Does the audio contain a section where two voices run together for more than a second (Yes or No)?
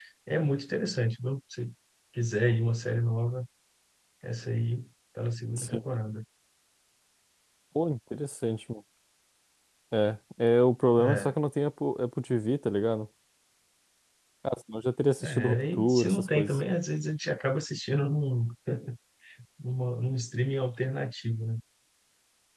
Yes